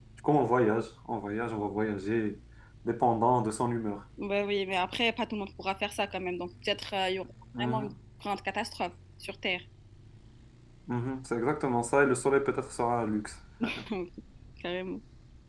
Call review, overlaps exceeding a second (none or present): none